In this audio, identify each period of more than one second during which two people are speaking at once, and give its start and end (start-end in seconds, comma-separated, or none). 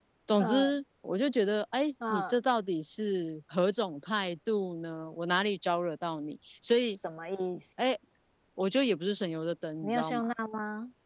none